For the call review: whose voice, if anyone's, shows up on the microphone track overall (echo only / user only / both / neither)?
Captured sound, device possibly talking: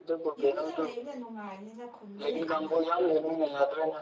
both